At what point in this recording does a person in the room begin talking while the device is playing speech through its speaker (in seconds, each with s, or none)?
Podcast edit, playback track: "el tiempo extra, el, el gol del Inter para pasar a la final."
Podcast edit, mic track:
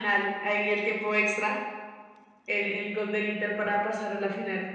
none